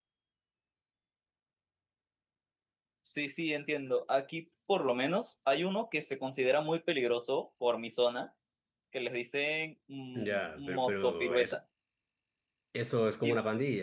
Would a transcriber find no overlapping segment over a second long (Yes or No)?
No